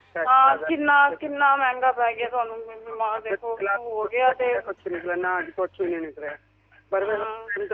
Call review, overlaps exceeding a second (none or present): none